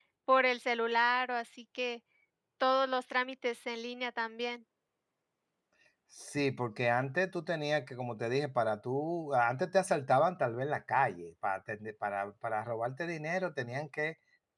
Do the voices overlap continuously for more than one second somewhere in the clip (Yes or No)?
No